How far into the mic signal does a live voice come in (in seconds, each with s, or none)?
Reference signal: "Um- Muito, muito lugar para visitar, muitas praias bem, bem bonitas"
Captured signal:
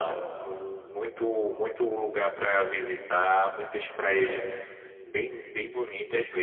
none